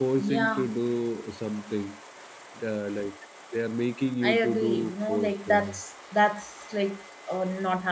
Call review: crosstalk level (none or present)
present